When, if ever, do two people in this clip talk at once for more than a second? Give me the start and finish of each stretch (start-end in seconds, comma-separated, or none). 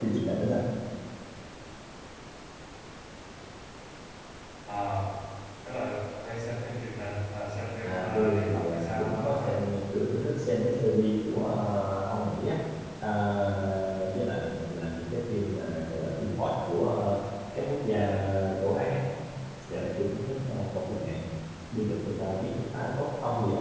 7.8-9.6